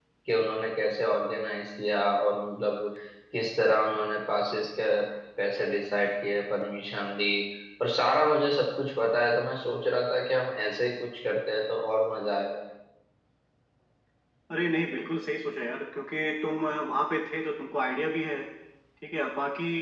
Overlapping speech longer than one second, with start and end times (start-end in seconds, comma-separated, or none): none